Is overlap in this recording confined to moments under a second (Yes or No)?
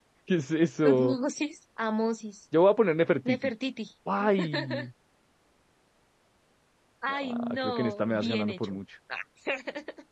No